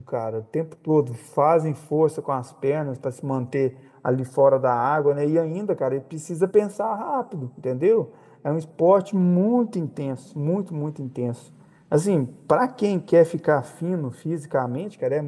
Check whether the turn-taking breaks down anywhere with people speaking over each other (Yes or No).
No